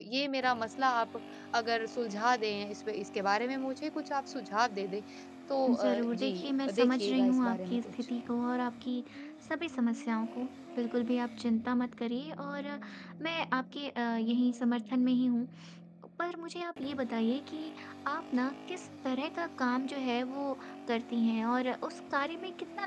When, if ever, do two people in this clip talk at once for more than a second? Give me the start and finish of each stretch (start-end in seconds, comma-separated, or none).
5.7-7.9